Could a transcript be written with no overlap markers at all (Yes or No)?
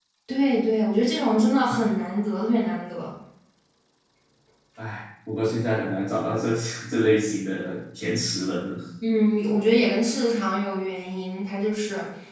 Yes